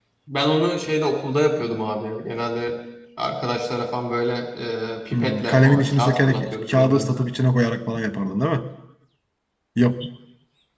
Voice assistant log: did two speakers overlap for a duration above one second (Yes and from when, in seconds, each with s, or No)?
Yes, from 5.1 s